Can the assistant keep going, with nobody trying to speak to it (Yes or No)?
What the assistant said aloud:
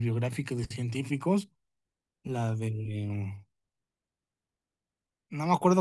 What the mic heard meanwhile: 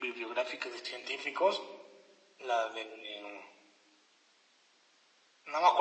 Yes